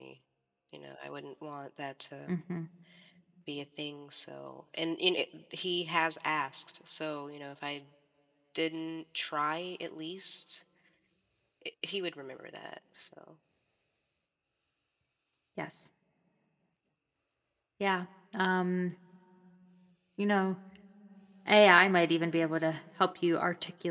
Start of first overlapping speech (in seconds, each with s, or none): none